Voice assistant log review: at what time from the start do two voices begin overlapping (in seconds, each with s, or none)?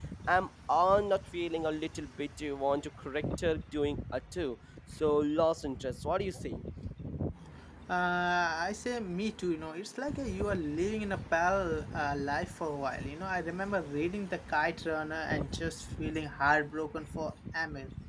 none